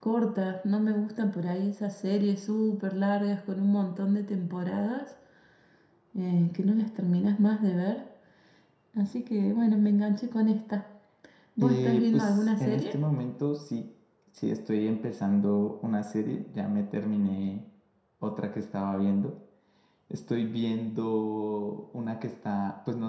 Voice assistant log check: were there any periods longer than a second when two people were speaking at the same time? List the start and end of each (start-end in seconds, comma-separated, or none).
11.6-12.9